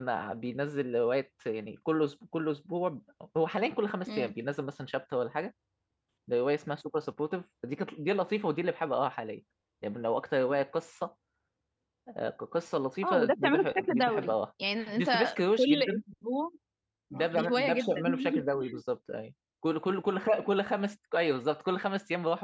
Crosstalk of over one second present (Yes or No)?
Yes